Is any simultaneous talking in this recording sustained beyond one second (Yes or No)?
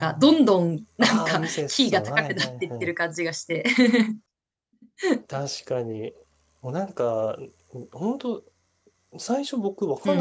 Yes